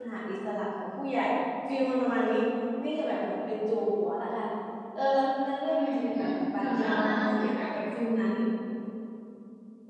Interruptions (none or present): present